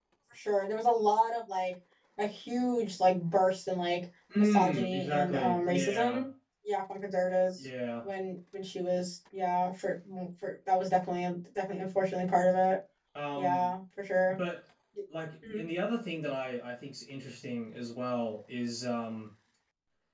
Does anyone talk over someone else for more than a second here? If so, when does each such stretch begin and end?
4.4-6.2

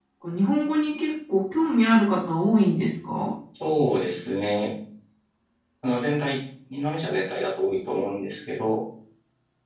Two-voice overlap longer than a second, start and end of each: none

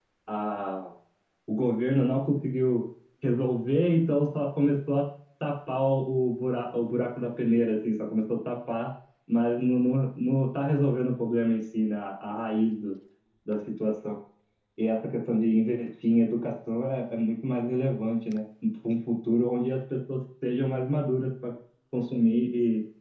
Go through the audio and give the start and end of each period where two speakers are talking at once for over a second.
none

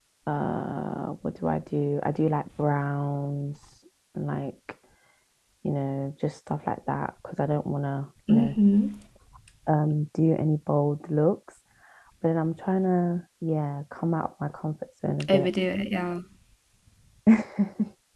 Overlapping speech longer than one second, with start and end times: none

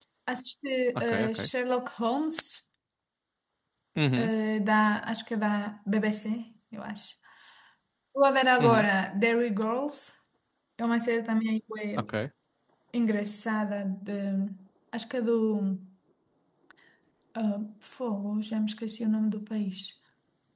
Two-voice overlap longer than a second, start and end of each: none

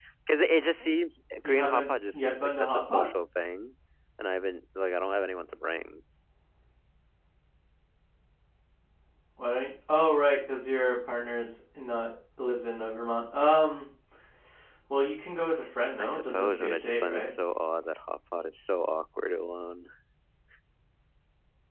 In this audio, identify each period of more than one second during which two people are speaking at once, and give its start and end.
1.4-3.1, 16.0-17.3

